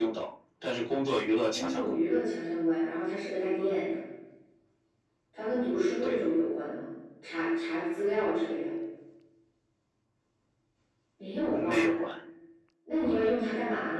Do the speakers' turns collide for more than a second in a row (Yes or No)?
No